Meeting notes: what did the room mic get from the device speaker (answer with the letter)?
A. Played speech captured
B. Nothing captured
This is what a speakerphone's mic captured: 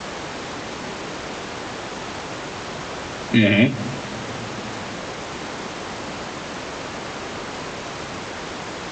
B